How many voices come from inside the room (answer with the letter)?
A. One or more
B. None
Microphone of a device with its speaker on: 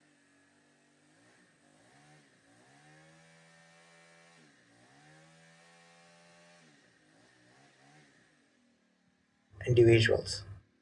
A